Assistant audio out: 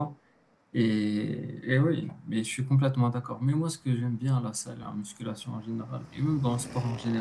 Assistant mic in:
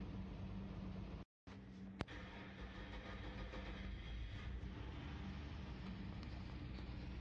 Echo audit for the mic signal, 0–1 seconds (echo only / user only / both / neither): neither